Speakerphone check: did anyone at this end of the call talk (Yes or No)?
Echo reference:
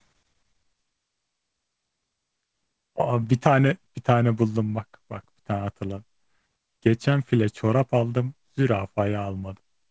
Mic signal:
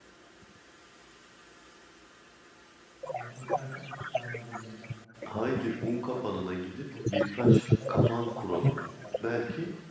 Yes